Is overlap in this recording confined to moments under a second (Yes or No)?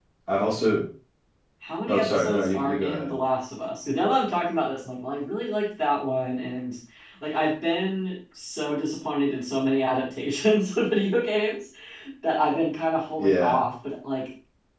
No